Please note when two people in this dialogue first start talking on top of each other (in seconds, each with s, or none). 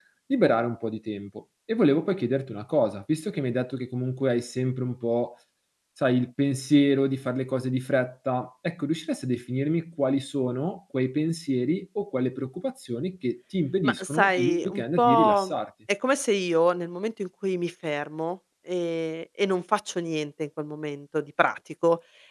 13.8 s